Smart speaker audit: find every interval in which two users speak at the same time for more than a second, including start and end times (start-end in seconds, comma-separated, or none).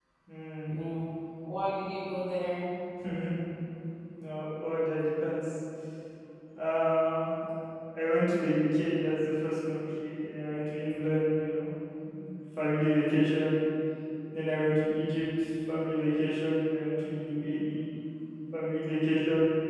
none